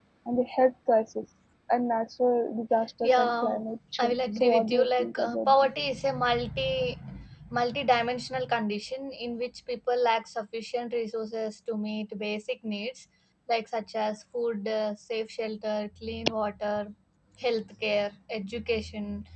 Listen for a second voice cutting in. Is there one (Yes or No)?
Yes